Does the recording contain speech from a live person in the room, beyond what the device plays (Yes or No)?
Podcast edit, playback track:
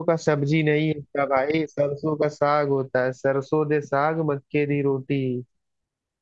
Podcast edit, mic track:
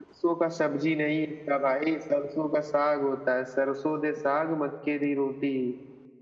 No